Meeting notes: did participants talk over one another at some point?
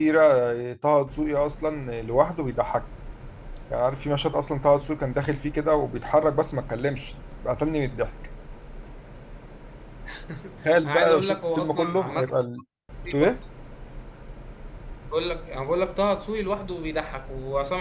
Yes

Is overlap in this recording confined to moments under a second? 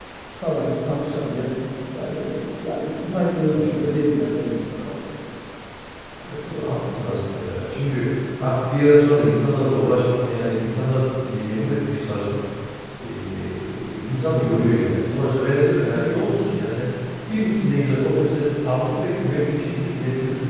Yes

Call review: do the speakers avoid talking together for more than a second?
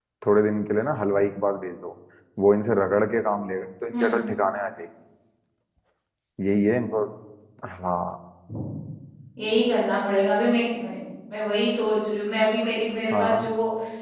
Yes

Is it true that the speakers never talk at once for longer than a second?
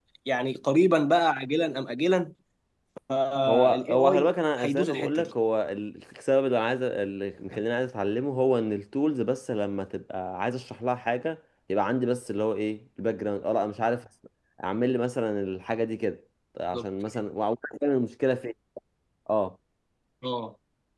No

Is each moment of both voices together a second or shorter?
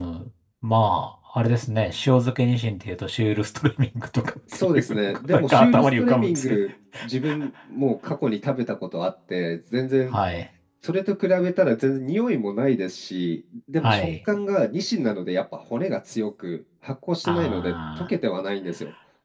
No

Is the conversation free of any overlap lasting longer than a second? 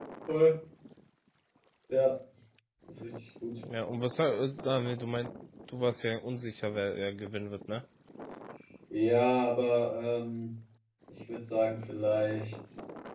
Yes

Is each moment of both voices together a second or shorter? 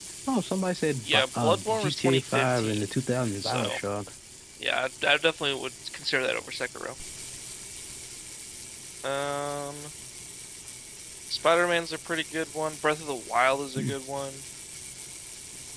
No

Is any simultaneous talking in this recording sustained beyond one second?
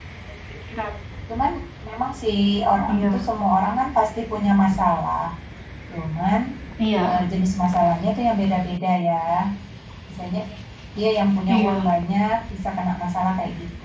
No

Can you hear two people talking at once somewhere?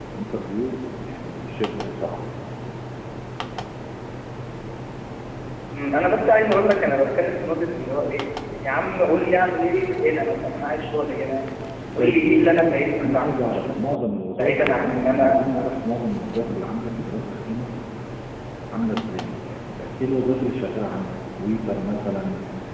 Yes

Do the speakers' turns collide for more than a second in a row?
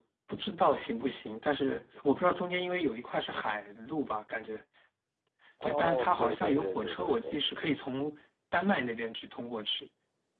Yes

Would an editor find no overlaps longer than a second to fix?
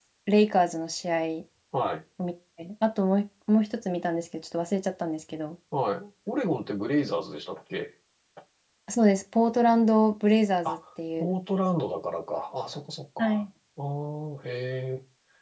Yes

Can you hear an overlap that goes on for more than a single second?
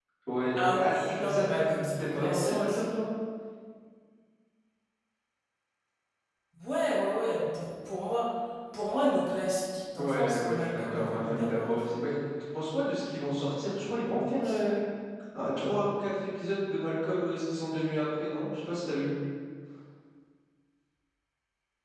Yes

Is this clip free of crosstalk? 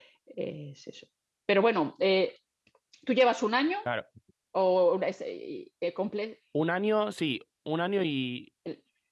Yes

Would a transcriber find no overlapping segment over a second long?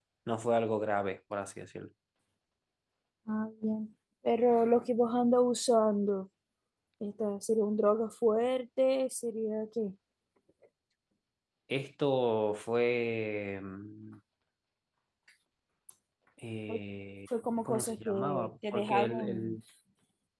No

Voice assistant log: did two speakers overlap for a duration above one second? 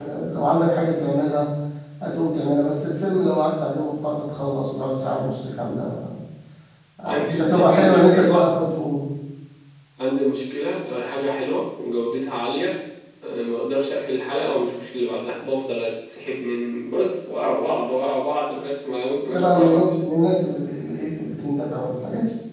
Yes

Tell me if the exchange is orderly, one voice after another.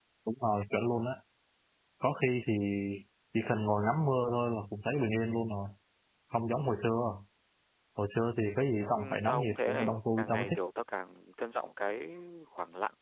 No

